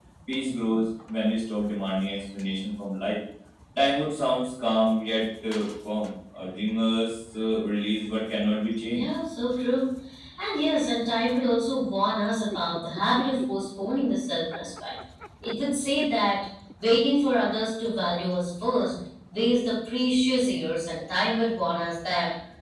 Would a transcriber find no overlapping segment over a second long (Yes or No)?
Yes